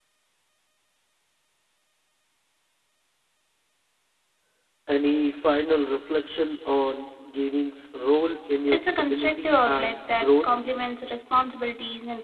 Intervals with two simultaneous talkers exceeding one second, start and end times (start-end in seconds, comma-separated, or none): 8.7-10.6